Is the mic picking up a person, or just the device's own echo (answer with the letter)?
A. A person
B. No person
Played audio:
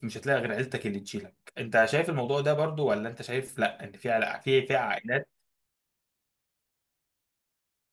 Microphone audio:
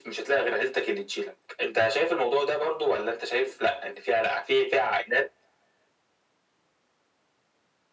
B